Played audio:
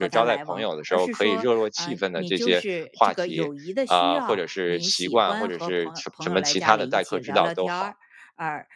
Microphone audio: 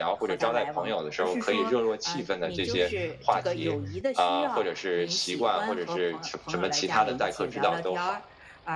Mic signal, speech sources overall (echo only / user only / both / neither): echo only